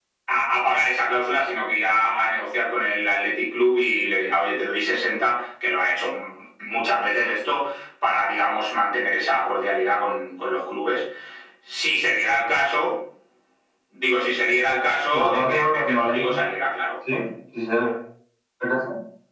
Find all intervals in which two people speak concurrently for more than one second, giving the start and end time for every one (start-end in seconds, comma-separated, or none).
15.1-16.4